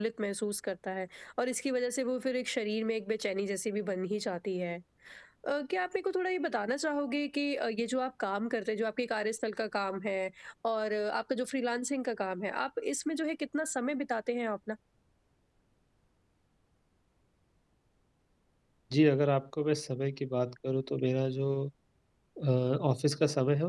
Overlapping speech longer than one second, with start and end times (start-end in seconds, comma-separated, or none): none